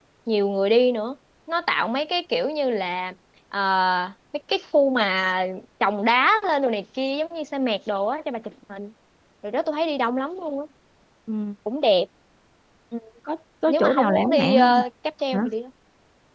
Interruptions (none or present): present